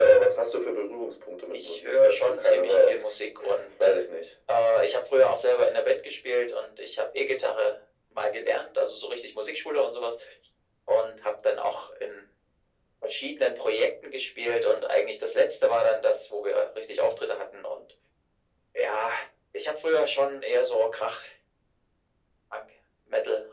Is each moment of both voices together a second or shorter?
No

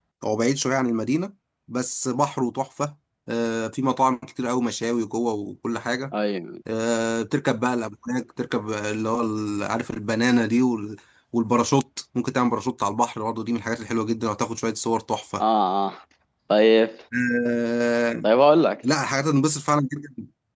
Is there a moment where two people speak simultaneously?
No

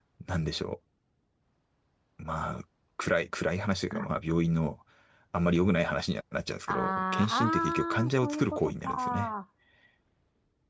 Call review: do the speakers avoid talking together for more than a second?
No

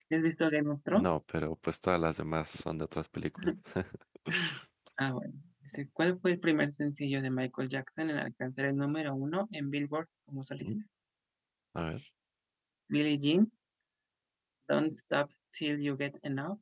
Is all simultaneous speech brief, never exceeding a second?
Yes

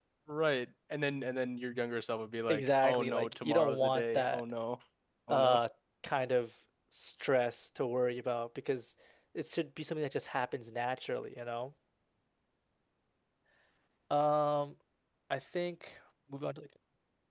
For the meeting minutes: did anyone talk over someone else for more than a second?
Yes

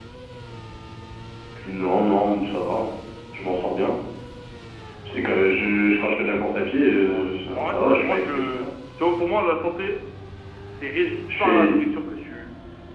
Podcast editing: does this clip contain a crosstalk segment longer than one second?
Yes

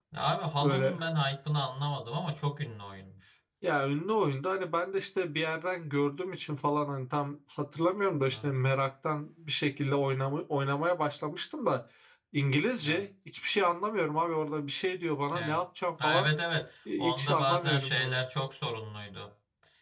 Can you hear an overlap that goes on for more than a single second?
Yes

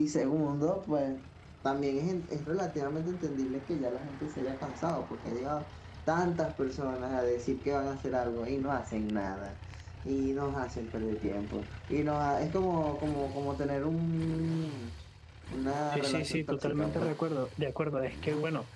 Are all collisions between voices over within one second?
No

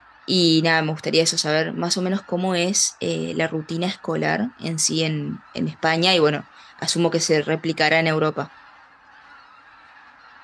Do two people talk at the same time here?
No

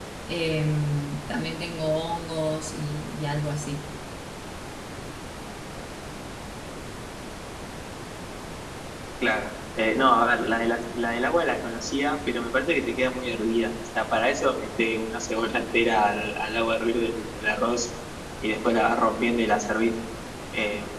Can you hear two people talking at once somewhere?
No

